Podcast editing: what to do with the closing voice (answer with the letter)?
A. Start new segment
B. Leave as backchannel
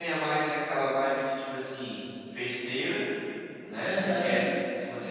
B